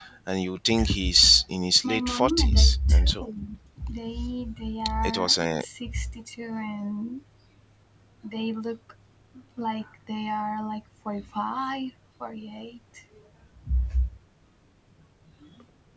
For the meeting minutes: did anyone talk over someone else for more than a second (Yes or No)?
Yes